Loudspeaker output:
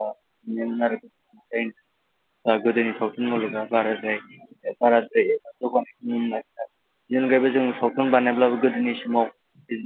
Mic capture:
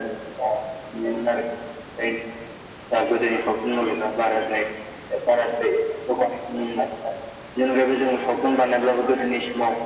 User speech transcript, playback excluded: none

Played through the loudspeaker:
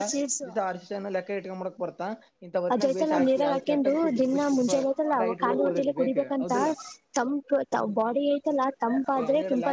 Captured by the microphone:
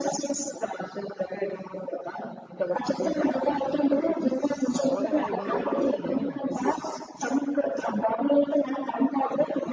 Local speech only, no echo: ಅವಾಗ ನಾ ಈ ಬಂದಾಗಡೋಲ್ ಮಾಡಿದ್ದೇನೆ ನೀನ್

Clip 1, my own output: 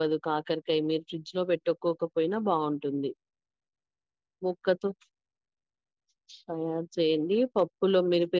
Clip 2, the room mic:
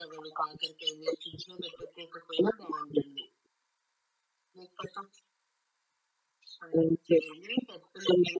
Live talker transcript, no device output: none

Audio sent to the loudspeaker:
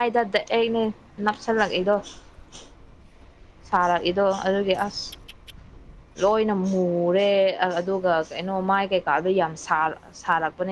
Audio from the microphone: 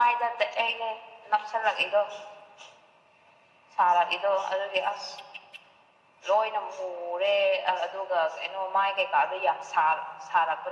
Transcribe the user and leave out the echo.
none

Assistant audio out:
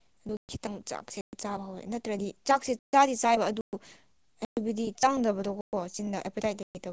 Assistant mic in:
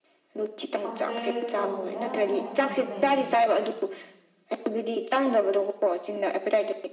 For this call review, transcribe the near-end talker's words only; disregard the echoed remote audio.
ꯃꯥꯁꯇꯔ ꯇꯧꯁꯤꯔꯥ ꯍꯥꯏꯅ ꯈꯜ ꯂꯩ

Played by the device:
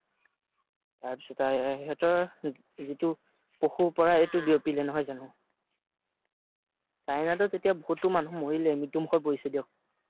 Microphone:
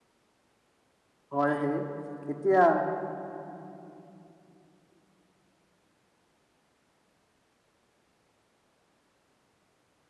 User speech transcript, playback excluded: হয় সেই এতিয়া

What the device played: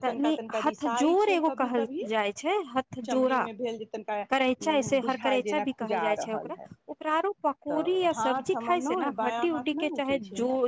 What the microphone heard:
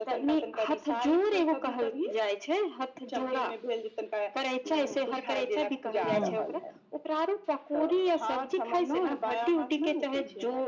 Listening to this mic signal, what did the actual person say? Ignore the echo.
हूँ

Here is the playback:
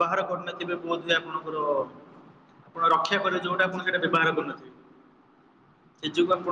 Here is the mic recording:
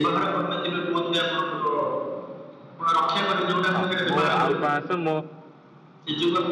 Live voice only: ହଁ ମୋ ଆଉ ପାଁଆଁଶ ମୋ

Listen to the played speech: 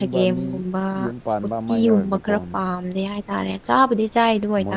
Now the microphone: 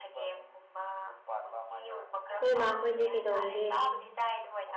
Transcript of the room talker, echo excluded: ꯅꯣꯏꯃꯥꯈꯣꯏꯗꯤ ꯀꯩꯗꯧꯔꯤꯒꯦ

